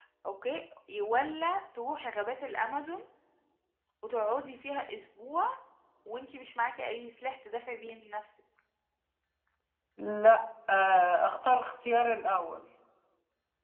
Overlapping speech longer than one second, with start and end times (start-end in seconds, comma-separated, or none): none